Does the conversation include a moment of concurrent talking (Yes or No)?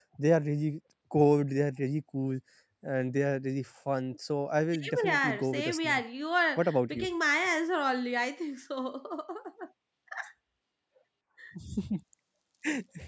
Yes